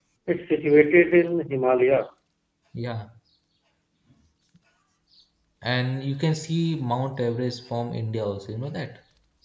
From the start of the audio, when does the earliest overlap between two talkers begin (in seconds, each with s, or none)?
none